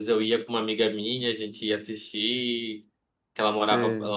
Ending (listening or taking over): listening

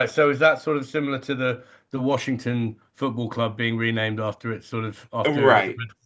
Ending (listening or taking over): taking over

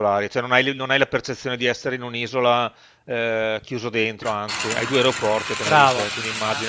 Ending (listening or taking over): taking over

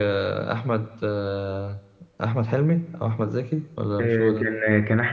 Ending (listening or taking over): taking over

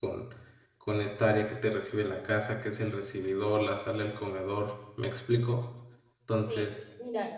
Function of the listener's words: taking over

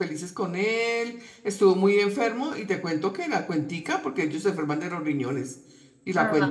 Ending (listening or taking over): listening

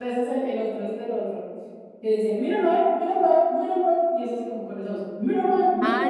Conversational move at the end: taking over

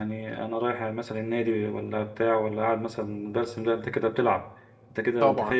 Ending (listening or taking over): taking over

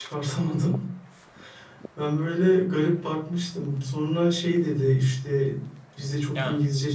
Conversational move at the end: listening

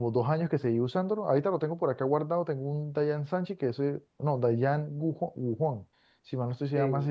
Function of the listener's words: listening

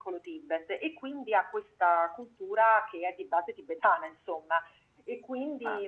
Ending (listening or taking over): listening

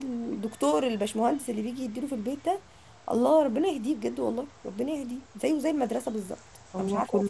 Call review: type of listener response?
taking over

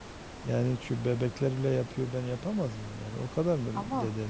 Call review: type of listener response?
listening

